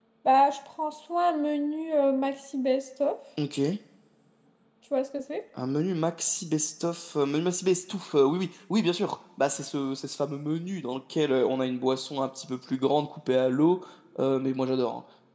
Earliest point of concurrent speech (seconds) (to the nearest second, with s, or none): none